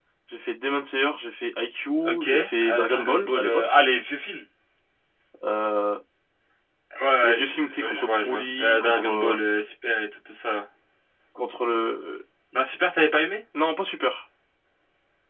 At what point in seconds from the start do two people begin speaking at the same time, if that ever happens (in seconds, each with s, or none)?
2.0 s